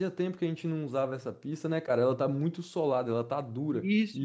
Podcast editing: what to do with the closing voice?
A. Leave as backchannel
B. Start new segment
B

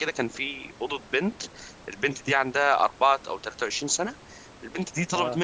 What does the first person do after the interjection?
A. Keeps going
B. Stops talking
A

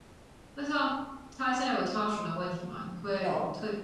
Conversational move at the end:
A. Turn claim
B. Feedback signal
B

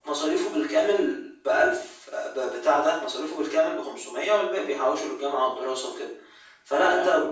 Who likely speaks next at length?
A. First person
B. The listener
B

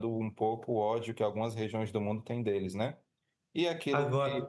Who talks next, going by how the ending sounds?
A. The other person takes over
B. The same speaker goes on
B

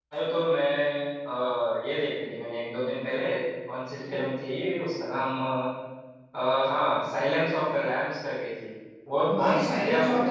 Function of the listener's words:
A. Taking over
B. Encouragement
A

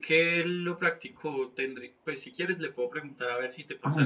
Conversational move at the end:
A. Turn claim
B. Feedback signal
A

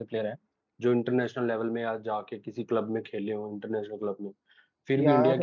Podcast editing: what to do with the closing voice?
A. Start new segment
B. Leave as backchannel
B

